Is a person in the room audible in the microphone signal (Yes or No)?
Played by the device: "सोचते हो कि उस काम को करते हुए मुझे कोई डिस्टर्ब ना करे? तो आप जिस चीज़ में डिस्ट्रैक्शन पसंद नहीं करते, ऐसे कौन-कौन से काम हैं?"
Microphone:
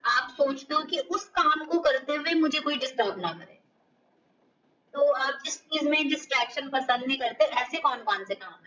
No